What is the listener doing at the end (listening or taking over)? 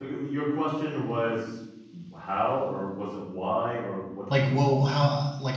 taking over